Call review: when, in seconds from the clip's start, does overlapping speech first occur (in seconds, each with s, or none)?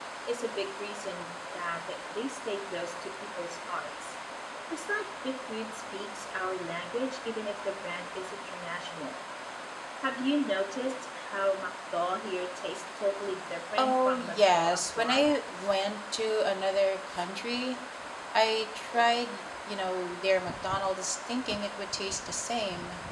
13.8 s